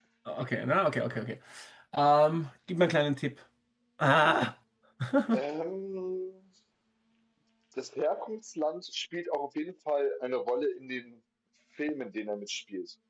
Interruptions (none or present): none